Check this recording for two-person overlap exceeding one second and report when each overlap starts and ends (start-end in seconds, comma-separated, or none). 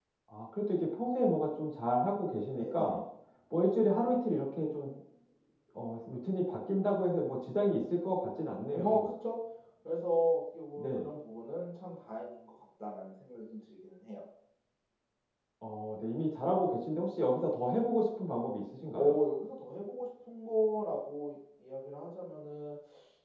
none